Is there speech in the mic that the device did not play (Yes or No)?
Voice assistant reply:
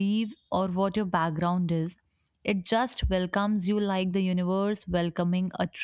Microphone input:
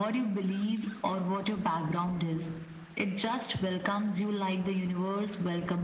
No